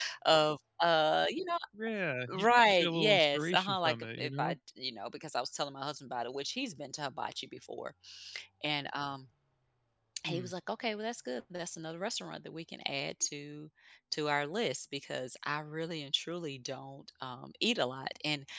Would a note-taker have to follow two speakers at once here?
Yes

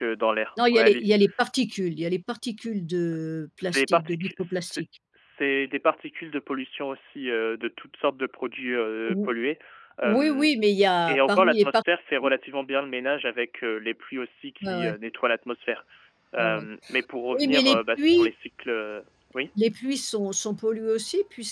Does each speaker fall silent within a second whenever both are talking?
No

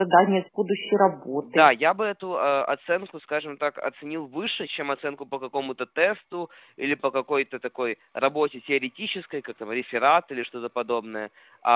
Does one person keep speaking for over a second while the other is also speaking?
No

